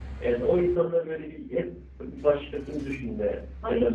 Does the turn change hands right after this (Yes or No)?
No